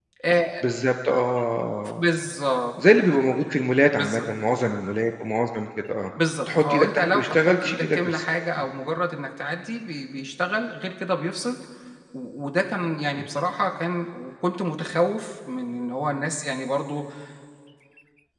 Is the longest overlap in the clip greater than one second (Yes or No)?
Yes